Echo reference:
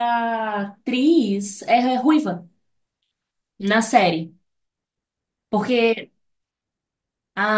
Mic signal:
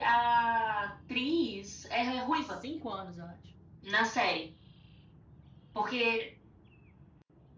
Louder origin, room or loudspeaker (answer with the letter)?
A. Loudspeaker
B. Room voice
A